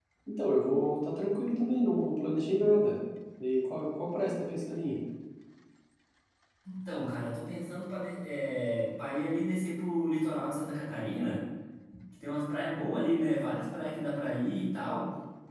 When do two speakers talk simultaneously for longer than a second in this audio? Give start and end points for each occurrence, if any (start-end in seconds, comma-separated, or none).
none